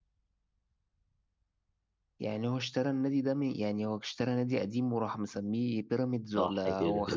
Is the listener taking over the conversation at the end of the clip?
Yes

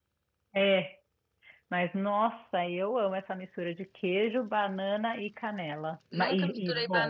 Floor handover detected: Yes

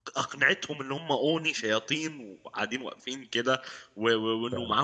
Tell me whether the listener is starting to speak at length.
No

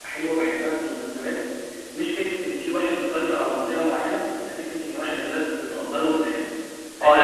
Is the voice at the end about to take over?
Yes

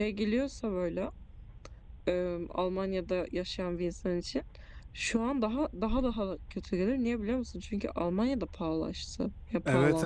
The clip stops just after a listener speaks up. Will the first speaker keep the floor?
No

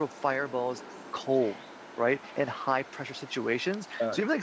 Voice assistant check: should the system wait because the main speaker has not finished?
Yes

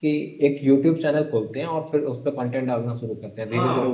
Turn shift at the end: Yes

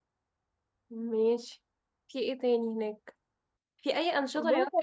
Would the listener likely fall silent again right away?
Yes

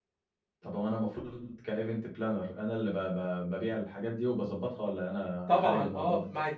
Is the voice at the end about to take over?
Yes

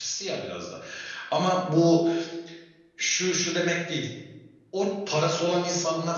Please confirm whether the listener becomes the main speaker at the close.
No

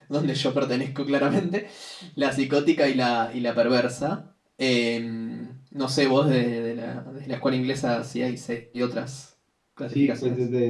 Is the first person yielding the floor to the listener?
Yes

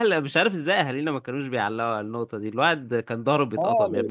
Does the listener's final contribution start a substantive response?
Yes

